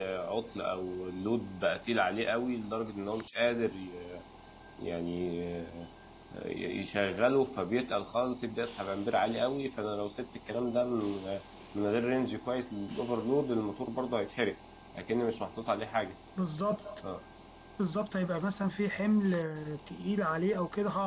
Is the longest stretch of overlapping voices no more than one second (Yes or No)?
Yes